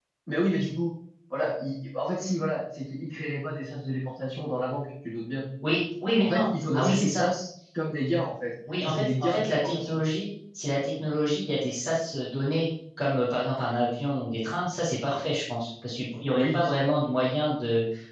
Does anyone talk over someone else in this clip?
Yes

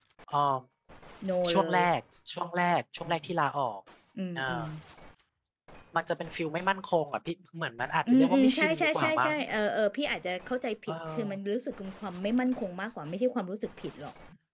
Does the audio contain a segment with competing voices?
Yes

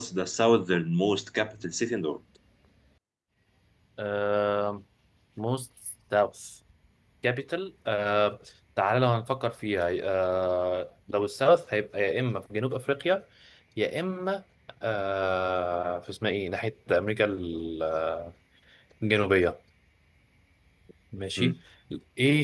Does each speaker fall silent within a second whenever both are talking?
Yes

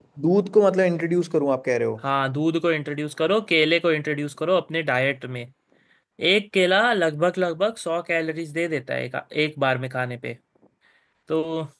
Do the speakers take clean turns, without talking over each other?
Yes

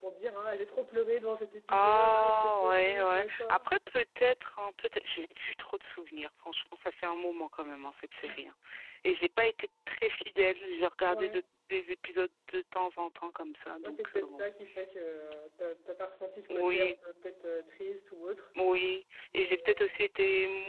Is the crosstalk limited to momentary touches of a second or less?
No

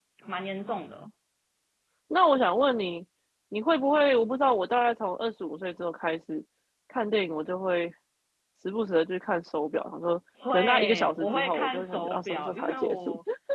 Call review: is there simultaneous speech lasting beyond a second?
Yes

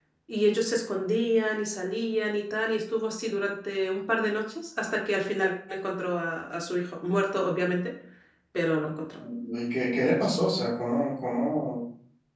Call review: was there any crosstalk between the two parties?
No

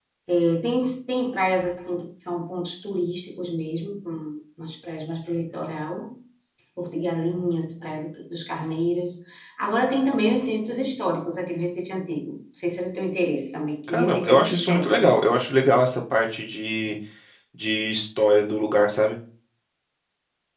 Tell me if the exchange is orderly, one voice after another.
No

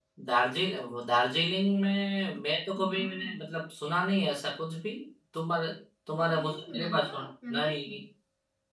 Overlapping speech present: Yes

